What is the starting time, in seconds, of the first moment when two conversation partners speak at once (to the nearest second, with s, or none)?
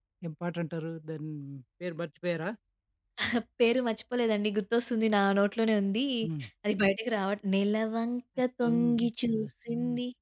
9 s